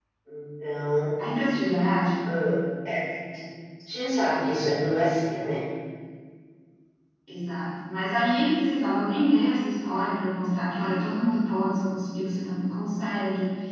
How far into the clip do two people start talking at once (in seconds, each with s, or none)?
none